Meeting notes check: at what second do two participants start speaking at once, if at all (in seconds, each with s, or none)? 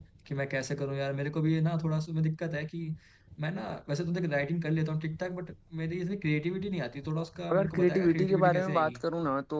7.5 s